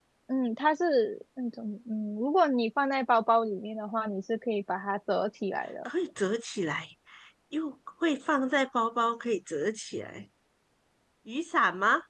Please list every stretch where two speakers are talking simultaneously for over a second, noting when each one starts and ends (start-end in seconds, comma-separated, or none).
none